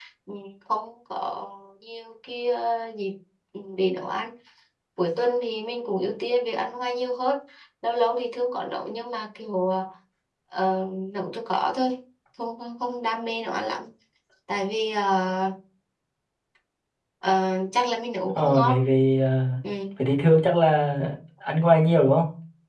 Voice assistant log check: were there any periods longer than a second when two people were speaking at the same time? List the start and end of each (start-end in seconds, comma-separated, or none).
none